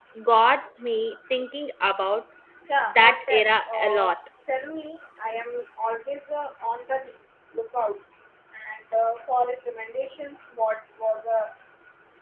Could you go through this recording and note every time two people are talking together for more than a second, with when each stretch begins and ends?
2.9-4.1

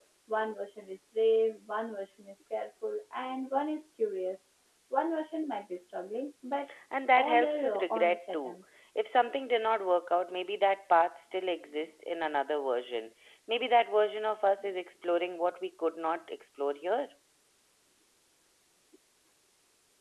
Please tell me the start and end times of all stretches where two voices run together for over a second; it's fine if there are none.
7.2-8.6

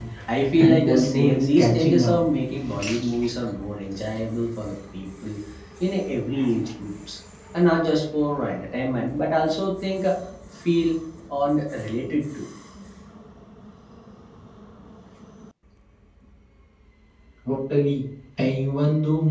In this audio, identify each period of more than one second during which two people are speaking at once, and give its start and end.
0.6-2.1

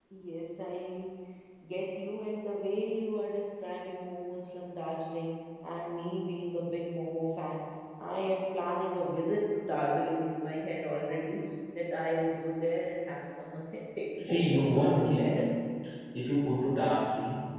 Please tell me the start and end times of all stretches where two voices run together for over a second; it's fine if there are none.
14.2-15.4

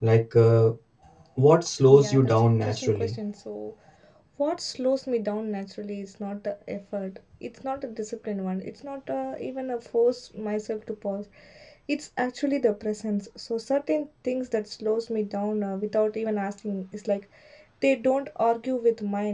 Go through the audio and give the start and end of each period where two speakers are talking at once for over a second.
1.9-3.1

